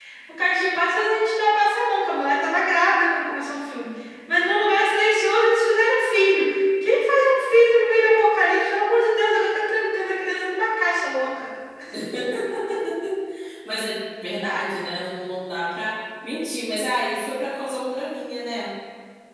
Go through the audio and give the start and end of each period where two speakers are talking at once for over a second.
none

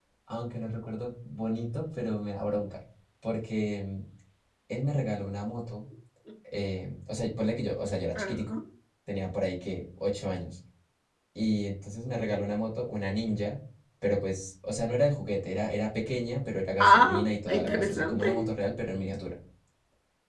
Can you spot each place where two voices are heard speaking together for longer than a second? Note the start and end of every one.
16.8-18.3

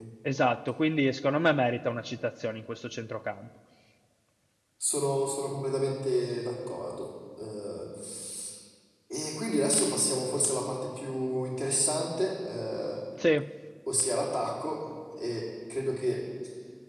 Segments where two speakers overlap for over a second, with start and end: none

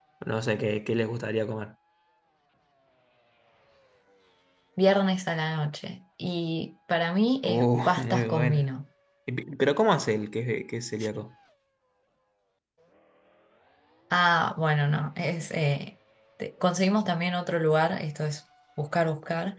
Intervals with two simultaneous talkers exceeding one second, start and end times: 7.4-8.6

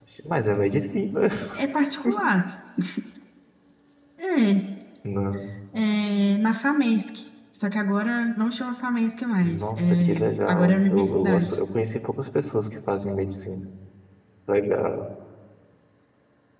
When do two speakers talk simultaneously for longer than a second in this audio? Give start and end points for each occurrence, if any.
9.4-11.6

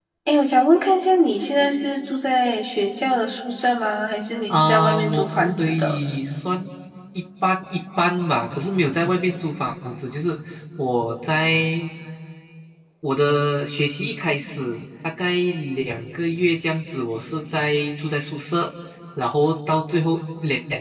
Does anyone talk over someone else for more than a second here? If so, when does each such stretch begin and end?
4.5-6.0

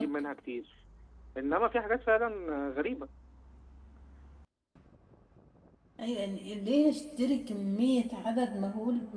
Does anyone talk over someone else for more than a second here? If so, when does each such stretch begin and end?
none

